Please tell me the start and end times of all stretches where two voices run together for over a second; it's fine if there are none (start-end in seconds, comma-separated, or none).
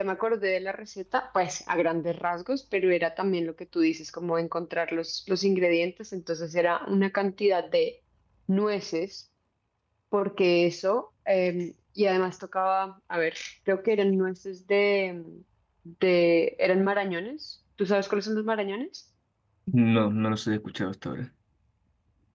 none